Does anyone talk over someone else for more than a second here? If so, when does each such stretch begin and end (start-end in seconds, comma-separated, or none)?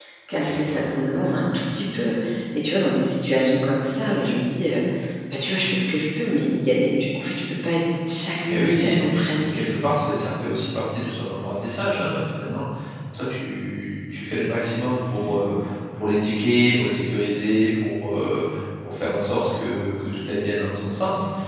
8.5-9.7